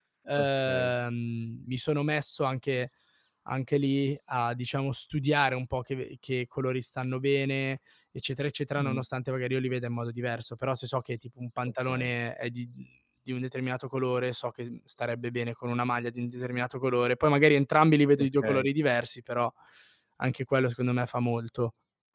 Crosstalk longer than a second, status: none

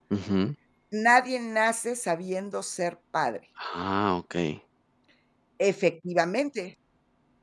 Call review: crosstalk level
none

